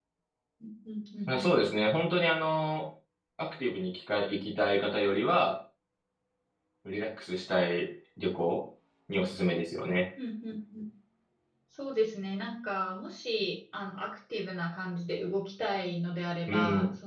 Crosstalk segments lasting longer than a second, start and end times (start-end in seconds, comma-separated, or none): none